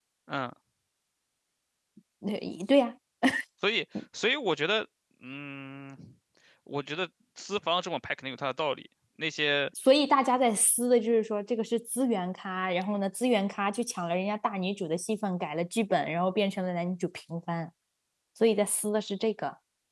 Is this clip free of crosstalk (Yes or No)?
Yes